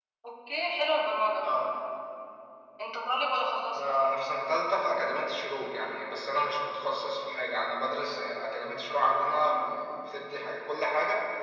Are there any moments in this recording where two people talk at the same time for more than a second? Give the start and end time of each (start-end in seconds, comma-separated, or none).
none